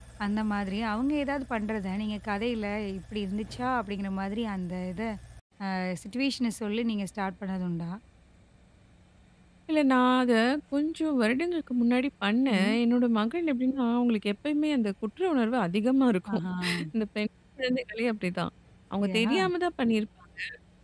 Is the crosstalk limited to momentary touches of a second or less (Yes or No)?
Yes